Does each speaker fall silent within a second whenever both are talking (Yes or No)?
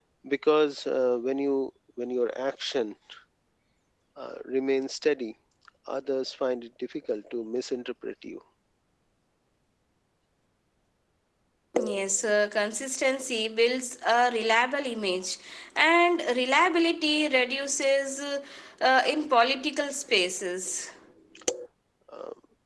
Yes